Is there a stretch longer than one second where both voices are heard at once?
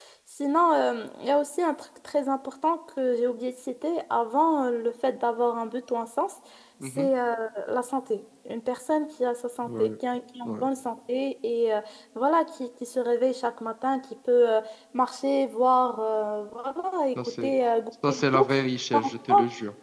No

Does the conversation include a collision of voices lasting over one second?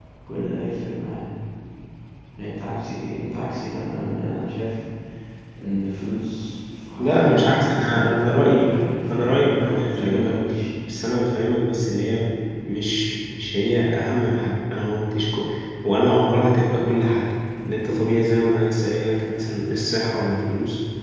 Yes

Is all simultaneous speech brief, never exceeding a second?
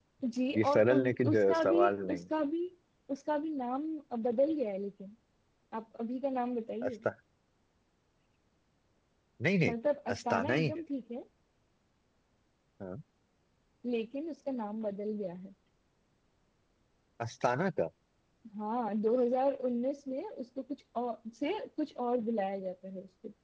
No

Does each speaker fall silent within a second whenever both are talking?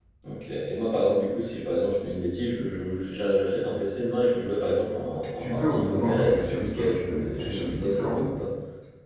No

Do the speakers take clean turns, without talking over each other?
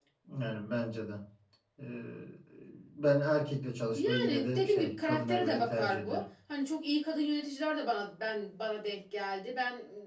No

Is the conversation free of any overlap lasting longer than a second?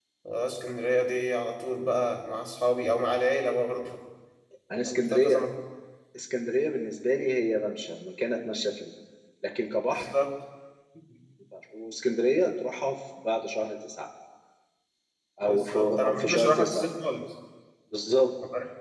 No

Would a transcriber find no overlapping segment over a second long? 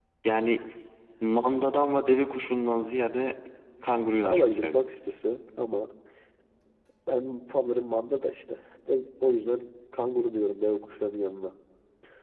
Yes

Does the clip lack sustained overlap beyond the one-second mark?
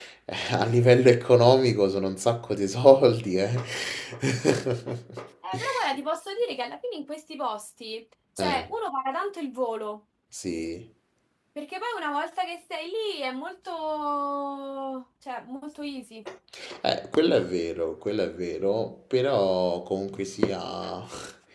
Yes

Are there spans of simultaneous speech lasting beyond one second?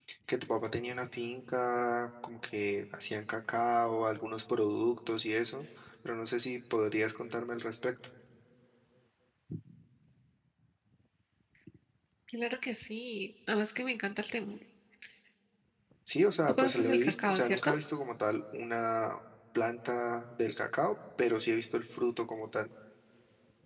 Yes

